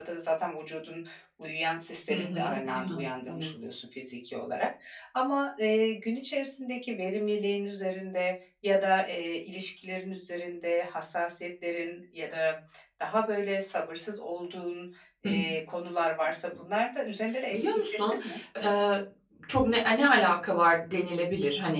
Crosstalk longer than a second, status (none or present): present